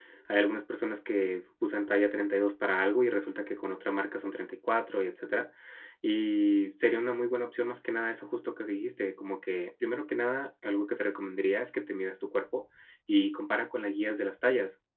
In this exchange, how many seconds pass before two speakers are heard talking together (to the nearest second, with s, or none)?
none